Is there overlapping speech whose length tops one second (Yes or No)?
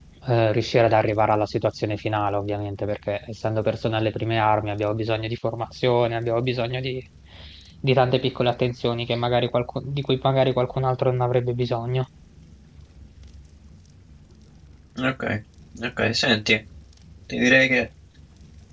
No